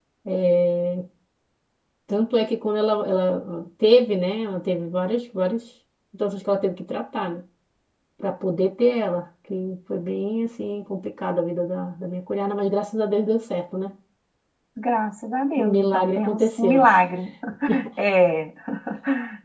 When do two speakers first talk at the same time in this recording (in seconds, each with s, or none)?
15.6 s